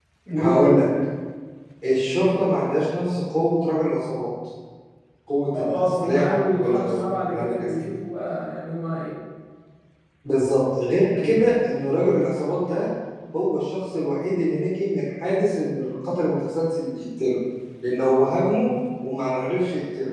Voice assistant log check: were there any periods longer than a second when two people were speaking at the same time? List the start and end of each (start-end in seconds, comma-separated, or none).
5.6-6.8